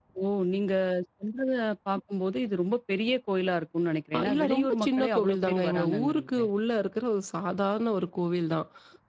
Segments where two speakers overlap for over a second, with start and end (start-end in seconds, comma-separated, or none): 4.2-6.4